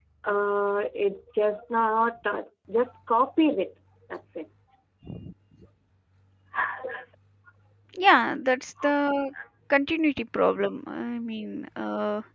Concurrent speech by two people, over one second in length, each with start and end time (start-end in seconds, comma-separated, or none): none